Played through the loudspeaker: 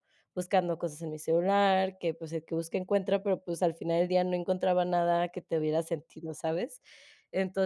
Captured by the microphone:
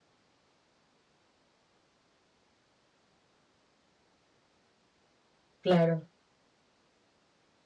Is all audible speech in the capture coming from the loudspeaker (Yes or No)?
No